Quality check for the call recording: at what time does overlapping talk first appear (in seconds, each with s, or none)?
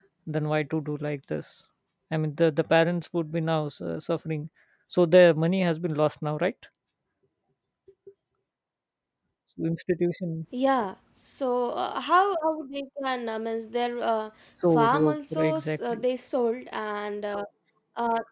14.7 s